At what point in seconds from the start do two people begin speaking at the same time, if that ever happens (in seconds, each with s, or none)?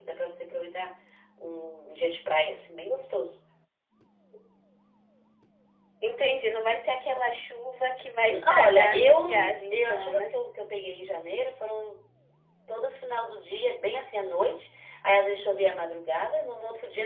8.3 s